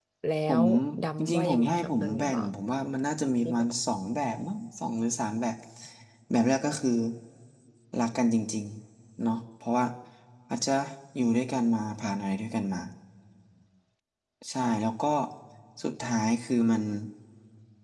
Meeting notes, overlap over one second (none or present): present